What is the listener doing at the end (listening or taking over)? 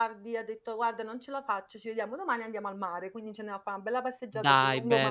taking over